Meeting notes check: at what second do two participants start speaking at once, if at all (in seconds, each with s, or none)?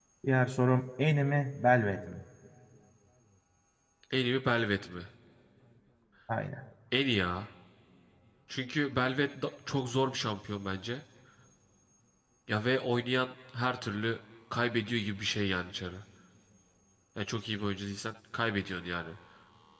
none